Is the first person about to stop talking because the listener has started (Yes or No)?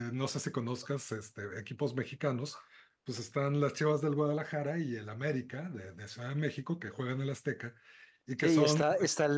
Yes